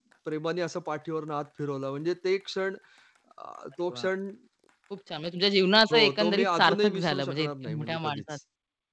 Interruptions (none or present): present